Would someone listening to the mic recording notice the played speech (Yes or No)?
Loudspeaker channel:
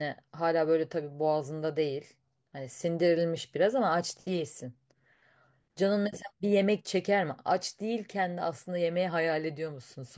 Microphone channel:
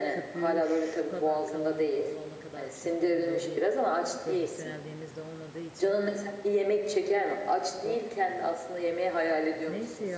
Yes